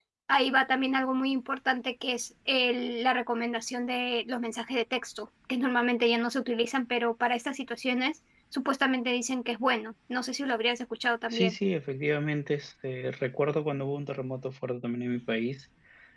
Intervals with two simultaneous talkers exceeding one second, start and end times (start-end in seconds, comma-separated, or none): none